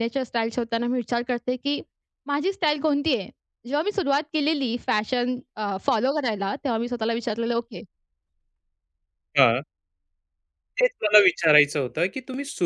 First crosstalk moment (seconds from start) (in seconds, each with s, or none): none